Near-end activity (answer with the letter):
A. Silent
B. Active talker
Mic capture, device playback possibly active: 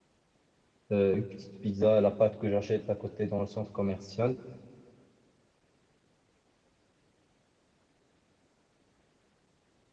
B